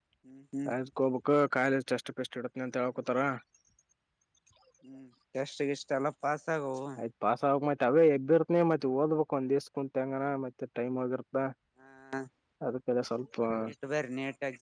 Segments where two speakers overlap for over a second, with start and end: none

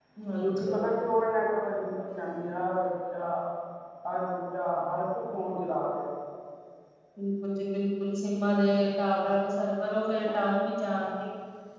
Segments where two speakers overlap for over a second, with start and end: none

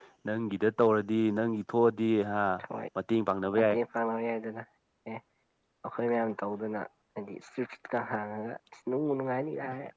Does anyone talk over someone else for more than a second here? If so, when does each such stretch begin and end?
none

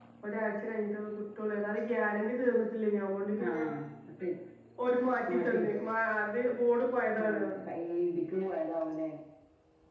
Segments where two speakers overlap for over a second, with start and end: none

